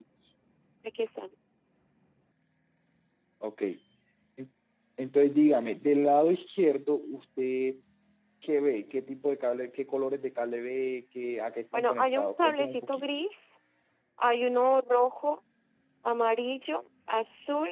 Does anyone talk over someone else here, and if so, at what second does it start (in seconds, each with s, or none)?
11.7 s